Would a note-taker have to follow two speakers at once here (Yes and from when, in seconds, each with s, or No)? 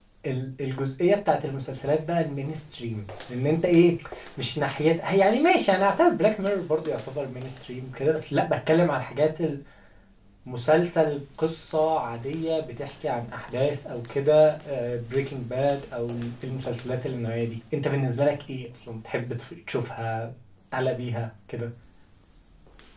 No